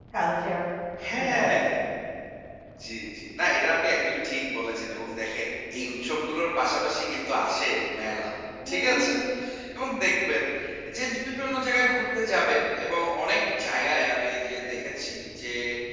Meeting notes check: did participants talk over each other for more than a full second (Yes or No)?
No